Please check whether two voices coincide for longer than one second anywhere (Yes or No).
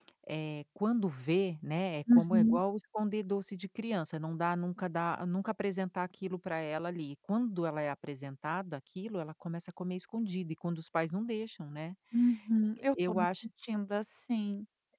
No